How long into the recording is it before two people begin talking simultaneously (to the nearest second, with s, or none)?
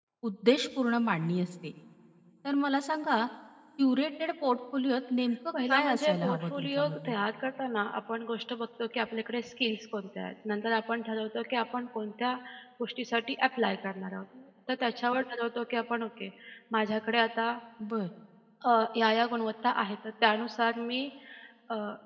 6 s